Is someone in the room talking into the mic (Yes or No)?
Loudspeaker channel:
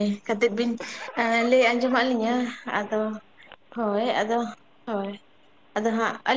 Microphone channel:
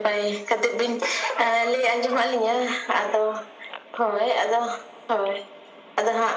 No